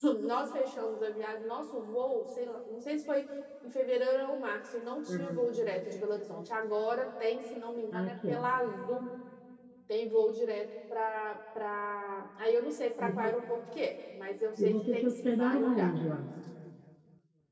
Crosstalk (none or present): present